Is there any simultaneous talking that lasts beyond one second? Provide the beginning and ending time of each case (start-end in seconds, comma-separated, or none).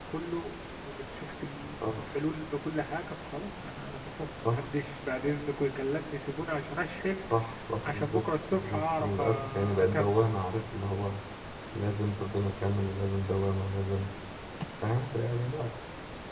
7.8-10.1